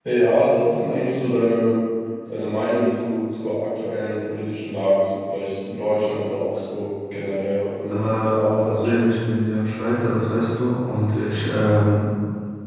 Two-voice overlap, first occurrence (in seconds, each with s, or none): 7.9 s